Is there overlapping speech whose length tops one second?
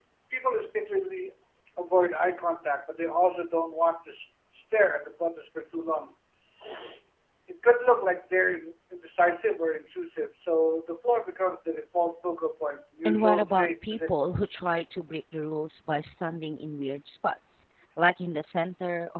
Yes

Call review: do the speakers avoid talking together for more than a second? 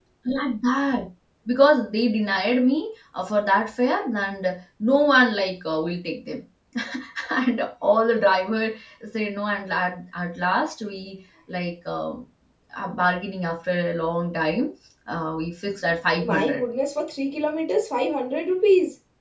Yes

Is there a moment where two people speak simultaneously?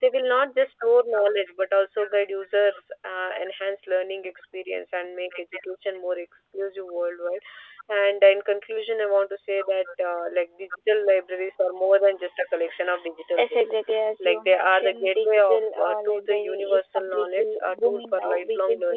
Yes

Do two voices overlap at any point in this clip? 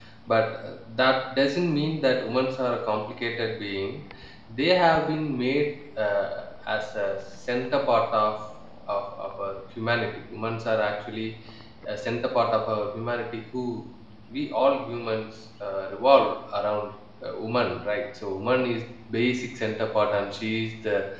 No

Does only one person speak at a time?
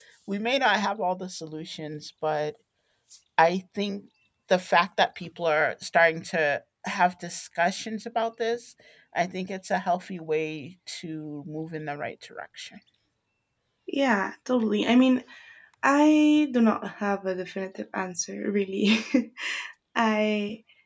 Yes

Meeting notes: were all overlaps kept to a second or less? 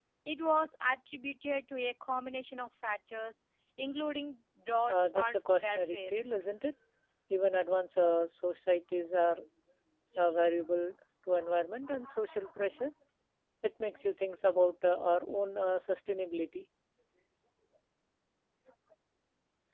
No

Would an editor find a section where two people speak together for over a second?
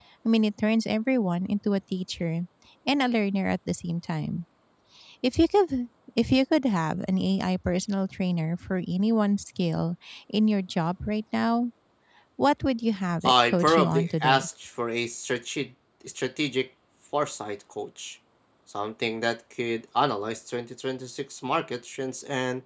Yes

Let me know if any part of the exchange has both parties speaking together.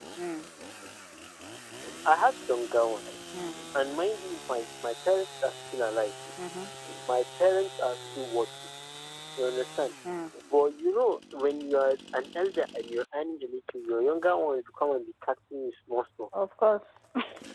No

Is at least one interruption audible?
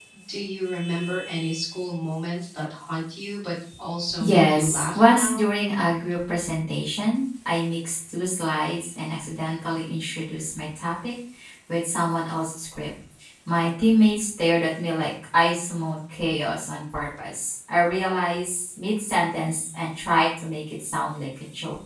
Yes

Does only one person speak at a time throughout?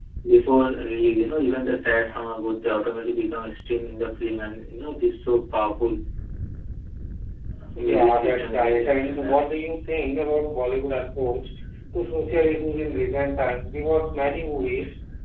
No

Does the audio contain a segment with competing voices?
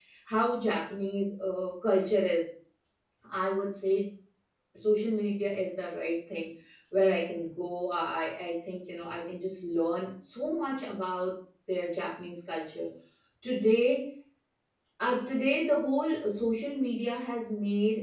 No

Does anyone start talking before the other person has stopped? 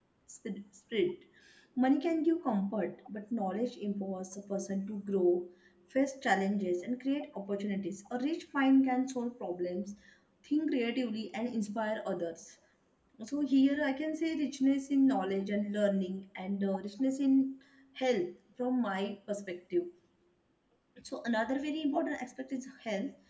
No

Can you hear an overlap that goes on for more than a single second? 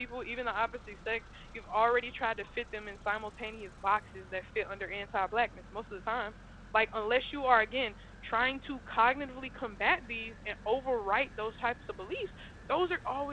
No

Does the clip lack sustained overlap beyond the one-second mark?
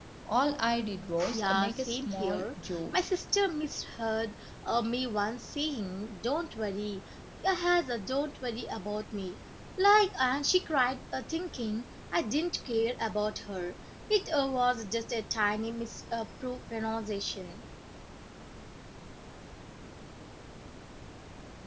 No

